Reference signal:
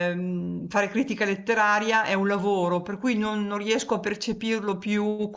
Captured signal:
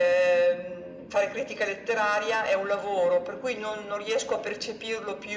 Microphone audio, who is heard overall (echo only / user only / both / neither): echo only